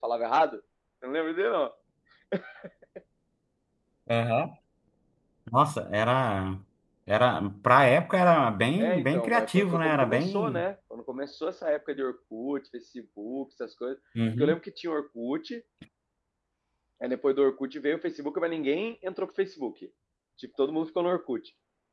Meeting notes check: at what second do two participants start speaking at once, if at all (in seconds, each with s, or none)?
8.8 s